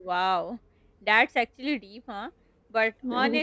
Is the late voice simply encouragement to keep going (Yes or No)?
Yes